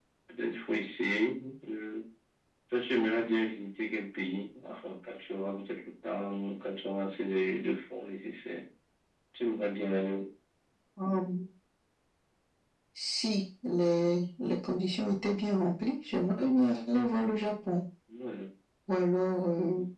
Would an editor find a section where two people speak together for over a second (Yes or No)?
No